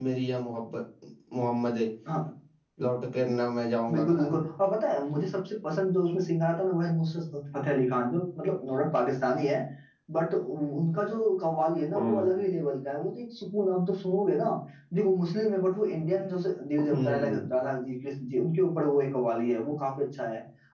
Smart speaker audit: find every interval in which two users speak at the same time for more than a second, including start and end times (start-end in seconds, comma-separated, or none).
none